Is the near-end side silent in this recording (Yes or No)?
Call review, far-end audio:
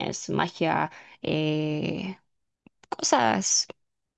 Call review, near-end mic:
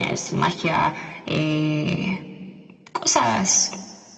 Yes